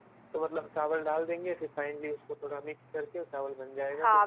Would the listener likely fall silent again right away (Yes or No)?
No